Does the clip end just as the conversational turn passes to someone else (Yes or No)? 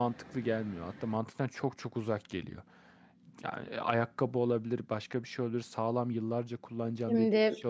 No